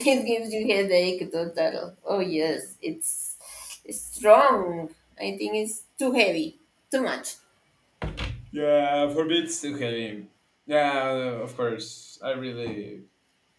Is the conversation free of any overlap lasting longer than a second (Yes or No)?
Yes